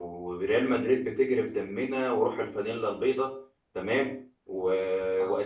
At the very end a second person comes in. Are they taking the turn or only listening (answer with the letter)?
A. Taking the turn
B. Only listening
B